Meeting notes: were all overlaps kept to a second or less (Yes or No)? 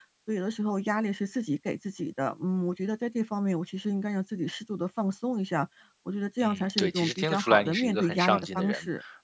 No